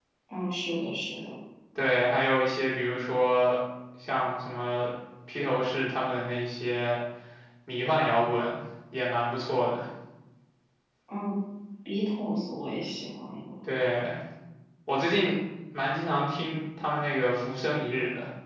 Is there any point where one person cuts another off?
No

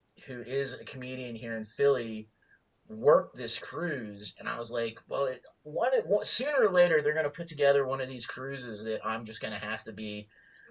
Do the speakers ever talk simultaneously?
No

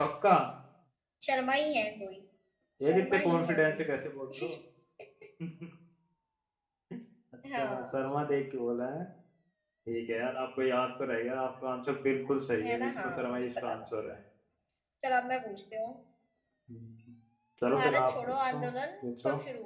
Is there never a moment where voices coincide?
No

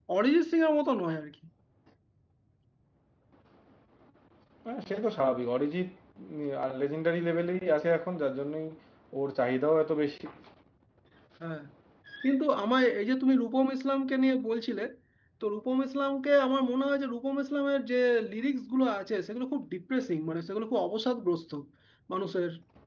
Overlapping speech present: No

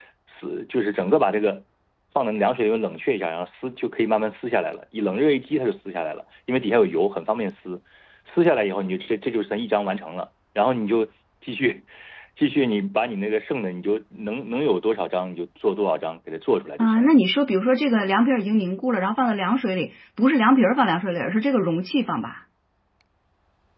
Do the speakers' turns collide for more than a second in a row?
No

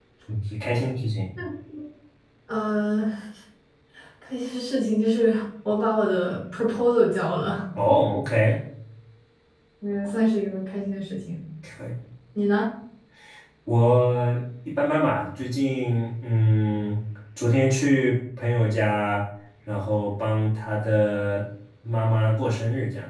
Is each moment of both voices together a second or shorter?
Yes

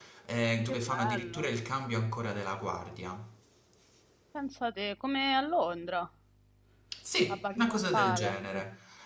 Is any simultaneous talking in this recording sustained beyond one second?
Yes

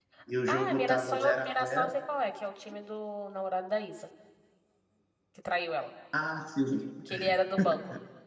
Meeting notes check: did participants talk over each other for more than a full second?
Yes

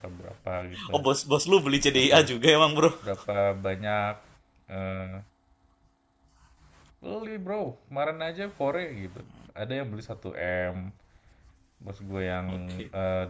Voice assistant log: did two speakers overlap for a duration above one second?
No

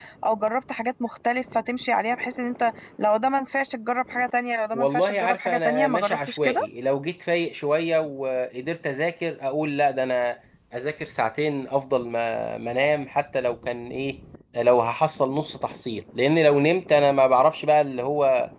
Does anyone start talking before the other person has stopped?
Yes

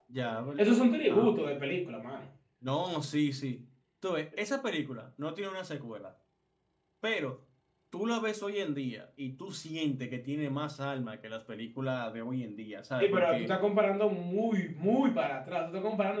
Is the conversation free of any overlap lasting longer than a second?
Yes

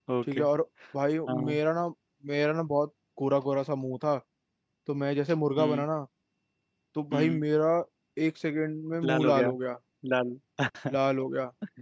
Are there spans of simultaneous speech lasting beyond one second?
No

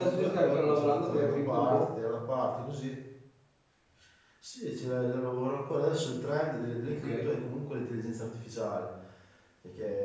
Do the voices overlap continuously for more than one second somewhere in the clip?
Yes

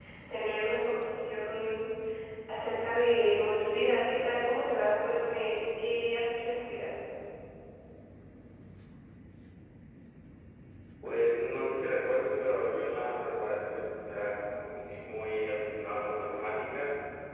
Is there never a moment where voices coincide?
Yes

